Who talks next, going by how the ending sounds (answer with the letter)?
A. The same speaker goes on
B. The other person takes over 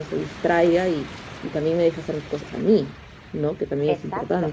B